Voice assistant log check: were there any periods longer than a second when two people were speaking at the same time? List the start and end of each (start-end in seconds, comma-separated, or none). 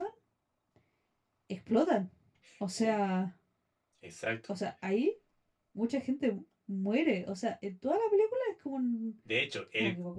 none